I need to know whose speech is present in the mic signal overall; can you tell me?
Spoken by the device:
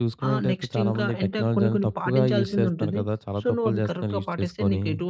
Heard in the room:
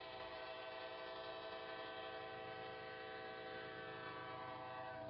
neither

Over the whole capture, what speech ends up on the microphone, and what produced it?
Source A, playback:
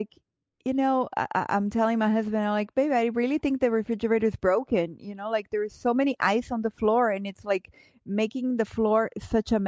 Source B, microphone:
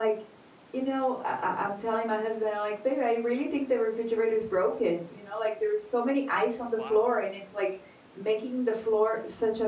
both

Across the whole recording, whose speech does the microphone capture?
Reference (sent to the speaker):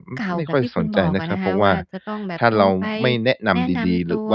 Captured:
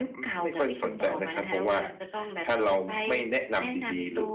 echo only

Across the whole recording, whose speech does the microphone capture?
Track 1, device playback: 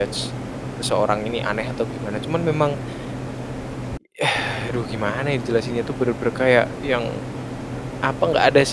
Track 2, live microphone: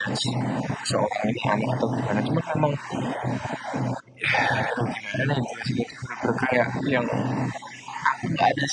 echo only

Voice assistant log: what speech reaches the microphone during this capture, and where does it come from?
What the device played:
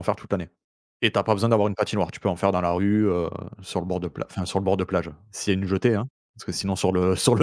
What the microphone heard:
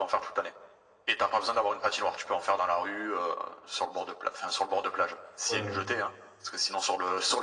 both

